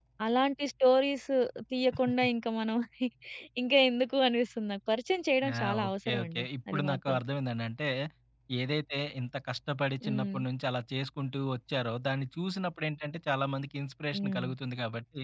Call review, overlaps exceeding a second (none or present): present